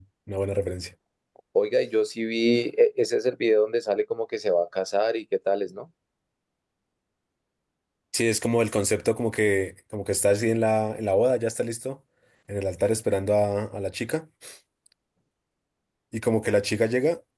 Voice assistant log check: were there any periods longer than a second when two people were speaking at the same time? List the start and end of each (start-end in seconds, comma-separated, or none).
none